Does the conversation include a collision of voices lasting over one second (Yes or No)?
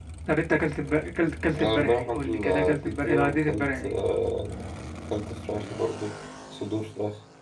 Yes